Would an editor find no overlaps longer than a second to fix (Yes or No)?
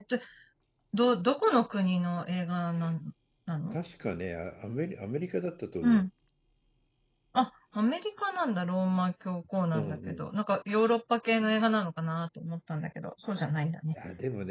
Yes